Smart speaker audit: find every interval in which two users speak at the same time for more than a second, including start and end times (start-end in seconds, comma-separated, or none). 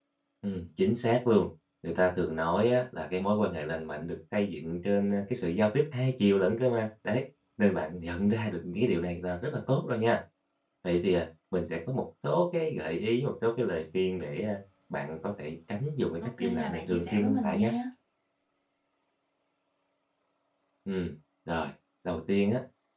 16.2-17.7